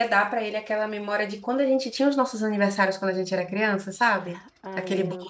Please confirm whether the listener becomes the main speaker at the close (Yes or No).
No